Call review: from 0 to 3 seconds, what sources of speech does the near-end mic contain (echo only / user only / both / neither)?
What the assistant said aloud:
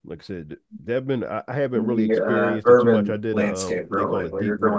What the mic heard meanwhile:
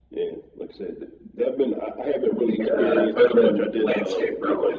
echo only